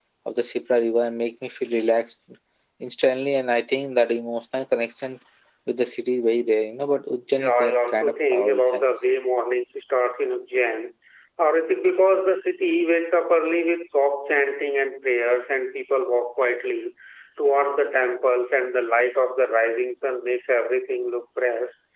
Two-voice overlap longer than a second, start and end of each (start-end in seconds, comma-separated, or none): 7.3-8.8